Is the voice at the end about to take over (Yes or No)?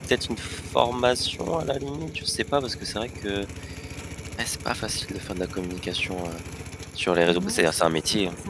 Yes